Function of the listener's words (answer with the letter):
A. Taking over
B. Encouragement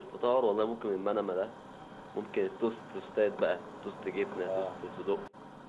B